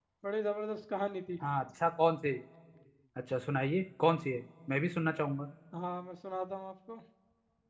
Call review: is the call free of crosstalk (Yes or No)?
Yes